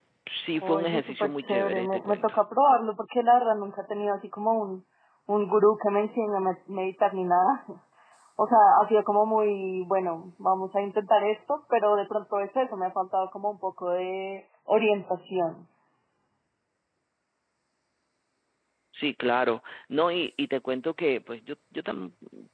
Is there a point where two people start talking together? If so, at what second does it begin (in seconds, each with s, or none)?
0.6 s